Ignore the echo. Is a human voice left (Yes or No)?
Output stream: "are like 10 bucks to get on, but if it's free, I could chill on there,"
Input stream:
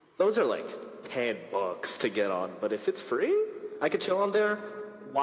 No